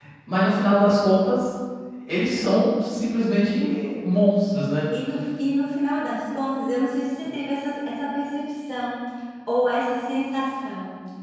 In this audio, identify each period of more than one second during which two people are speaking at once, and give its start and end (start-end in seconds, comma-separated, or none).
none